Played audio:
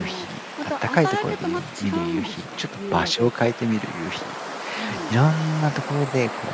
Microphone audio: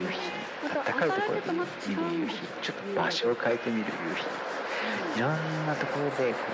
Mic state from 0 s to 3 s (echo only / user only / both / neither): echo only